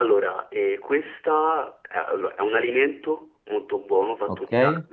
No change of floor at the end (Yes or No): Yes